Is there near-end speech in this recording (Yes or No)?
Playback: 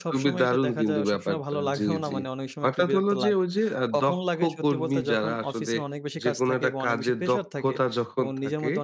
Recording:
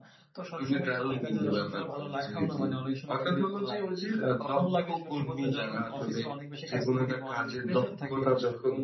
No